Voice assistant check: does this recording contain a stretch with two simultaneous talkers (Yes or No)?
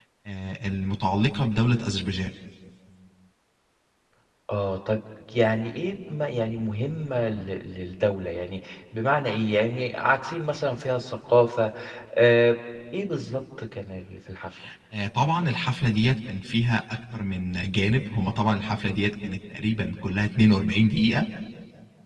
No